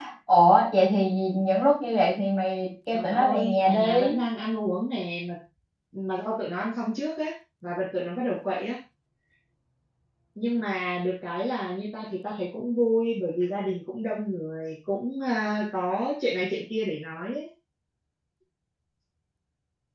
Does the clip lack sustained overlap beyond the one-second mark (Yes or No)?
No